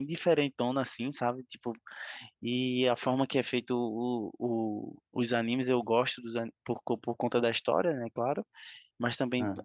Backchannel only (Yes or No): Yes